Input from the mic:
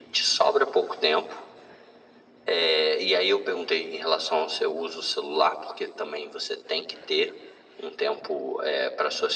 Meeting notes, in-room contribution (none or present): none